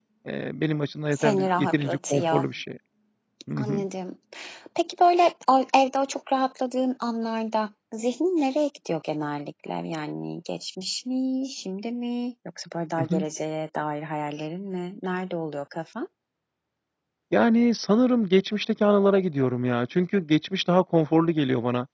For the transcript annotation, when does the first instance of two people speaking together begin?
1 s

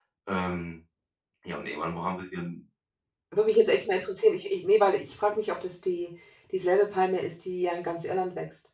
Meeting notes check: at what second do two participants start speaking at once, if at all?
none

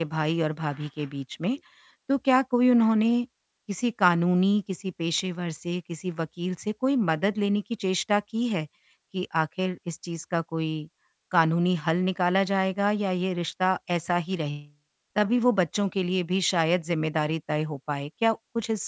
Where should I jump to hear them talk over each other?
none

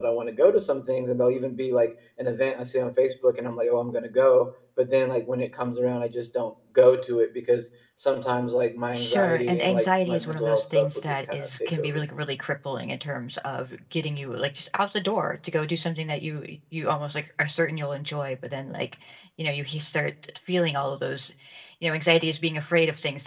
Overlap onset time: 9 s

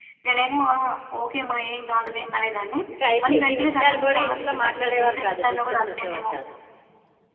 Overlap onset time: 3 s

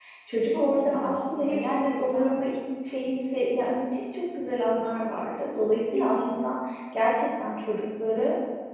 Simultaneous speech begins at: 1 s

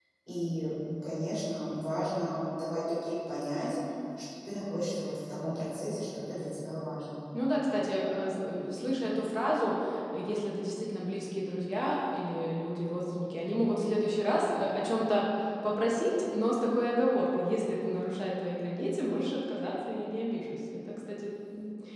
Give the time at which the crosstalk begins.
none

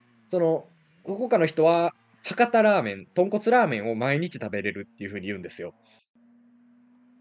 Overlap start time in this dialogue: none

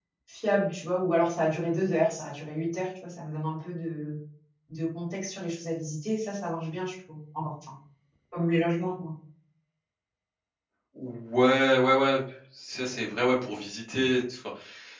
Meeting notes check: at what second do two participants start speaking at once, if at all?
none

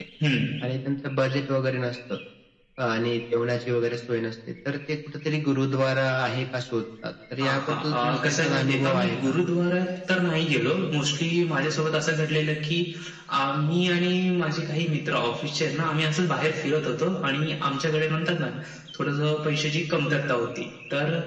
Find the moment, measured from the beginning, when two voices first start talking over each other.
7 s

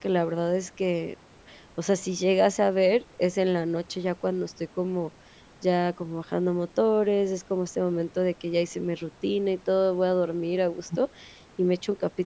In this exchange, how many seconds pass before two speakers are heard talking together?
none

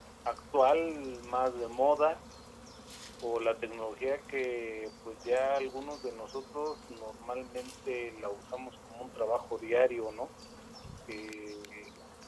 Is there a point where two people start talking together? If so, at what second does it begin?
none

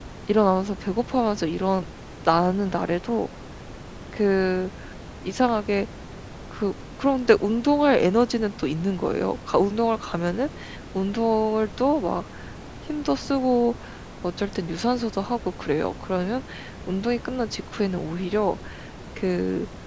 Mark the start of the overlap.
none

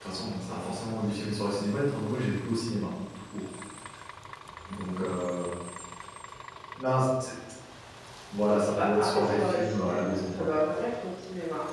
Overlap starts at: 9 s

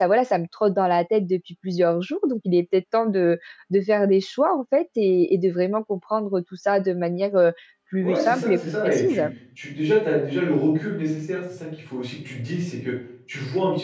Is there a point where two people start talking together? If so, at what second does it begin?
8 s

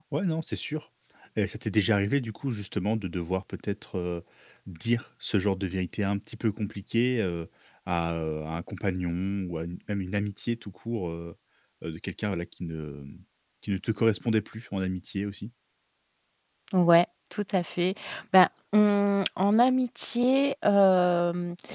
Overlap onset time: none

